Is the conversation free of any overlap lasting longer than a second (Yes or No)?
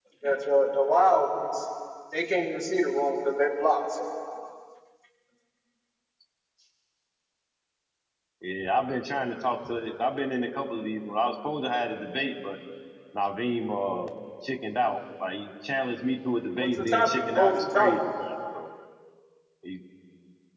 No